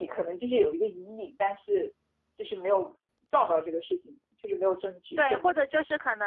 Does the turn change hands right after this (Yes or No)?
Yes